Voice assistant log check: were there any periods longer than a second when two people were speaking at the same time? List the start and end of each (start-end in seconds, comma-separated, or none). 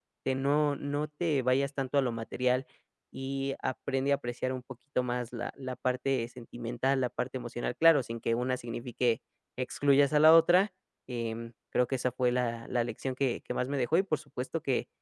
none